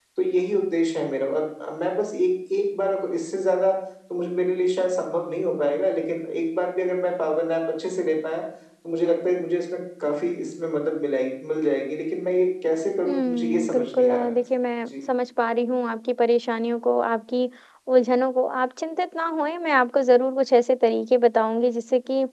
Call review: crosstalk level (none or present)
present